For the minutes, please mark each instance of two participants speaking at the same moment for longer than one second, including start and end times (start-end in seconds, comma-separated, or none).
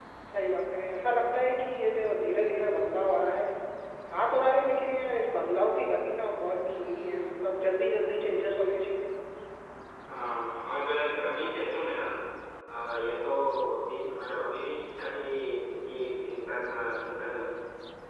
none